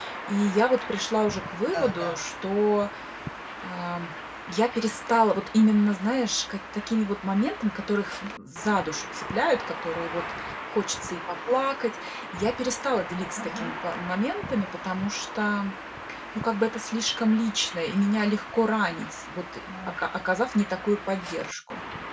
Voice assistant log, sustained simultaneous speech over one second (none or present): none